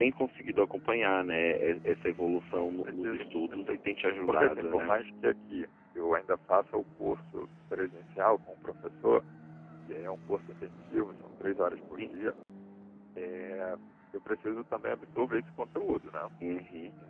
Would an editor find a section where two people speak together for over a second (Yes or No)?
Yes